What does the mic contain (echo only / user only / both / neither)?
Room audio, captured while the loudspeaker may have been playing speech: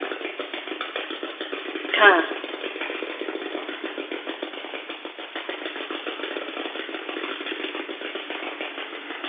user only